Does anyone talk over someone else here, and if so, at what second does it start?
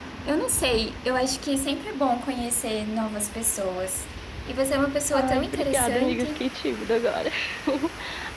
5.1 s

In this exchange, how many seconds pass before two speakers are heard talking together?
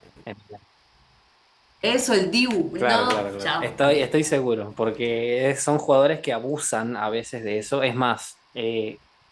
2.8 s

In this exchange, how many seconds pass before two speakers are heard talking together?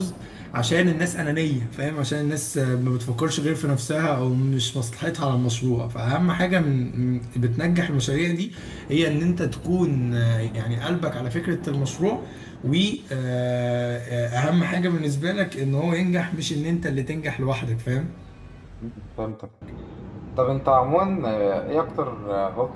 none

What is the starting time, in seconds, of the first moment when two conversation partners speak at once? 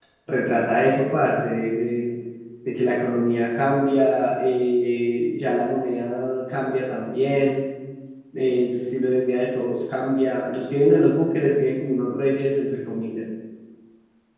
none

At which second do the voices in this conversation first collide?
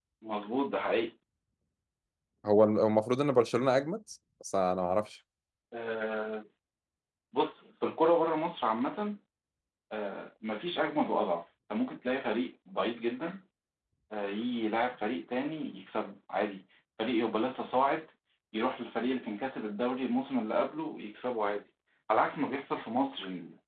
none

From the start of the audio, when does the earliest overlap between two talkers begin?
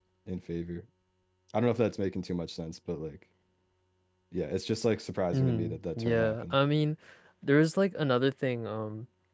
5.3 s

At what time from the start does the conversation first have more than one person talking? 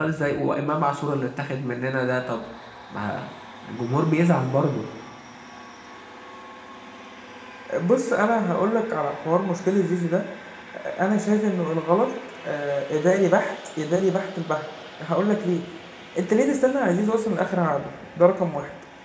none

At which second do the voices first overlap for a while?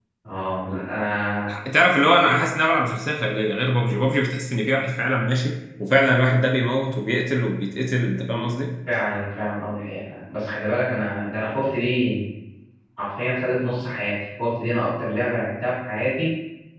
none

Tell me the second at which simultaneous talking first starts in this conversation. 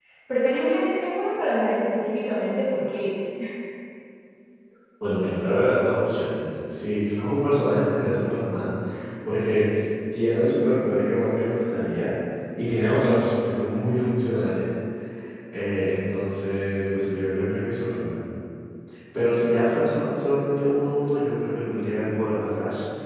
none

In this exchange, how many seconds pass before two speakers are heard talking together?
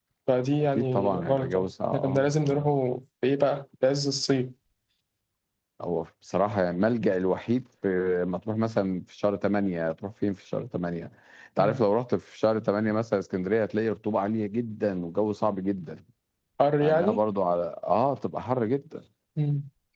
0.6 s

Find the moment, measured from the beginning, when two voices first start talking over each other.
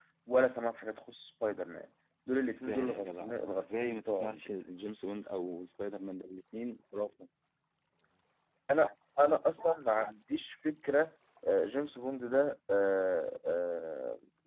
2.4 s

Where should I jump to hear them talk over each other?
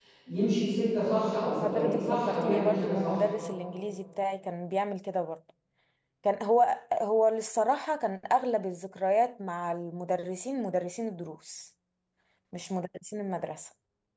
1.4 s

